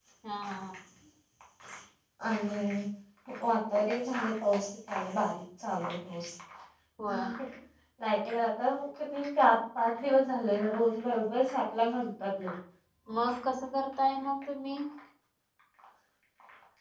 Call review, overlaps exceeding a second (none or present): none